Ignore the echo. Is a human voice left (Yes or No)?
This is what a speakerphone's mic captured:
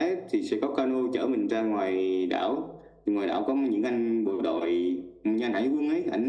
No